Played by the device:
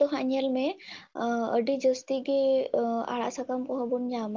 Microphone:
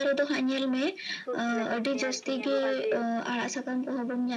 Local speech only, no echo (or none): ᱛᱩᱫ ᱞᱟᱹᱜᱤᱫ ᱛᱮ ᱟᱨᱠᱤ ᱧᱮᱞᱚᱜᱼᱟ ᱡᱮ